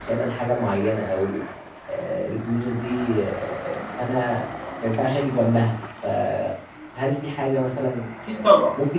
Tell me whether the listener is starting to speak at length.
No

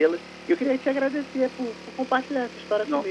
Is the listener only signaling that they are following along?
Yes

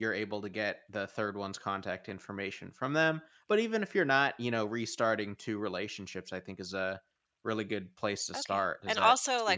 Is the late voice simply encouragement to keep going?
No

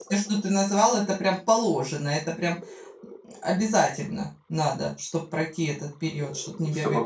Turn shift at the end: Yes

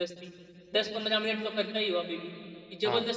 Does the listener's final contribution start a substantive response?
Yes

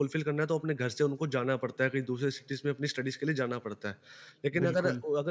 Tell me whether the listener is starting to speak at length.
No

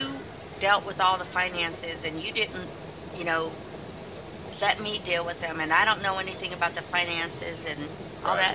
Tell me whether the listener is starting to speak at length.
No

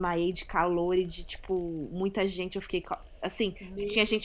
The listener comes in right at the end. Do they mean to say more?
No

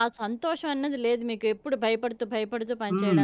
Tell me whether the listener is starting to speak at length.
Yes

